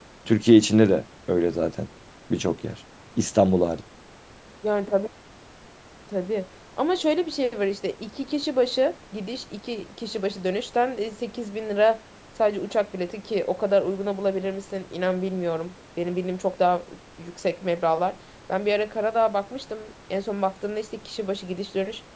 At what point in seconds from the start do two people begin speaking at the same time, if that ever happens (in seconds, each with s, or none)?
none